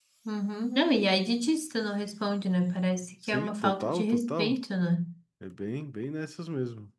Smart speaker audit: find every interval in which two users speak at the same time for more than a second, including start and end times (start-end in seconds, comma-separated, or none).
3.3-4.6